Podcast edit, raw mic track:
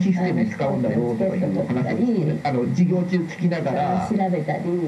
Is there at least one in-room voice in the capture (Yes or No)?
No